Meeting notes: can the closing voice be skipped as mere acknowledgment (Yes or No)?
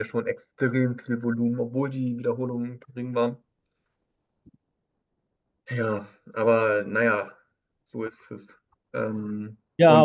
Yes